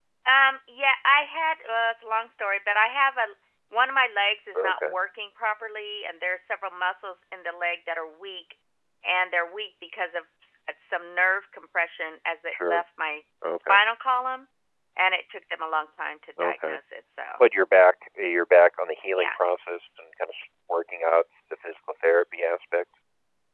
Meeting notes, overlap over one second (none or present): none